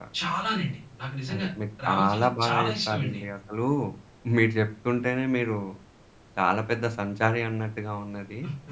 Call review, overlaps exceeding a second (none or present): present